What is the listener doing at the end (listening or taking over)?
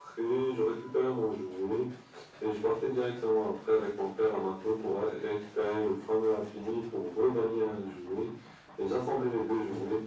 listening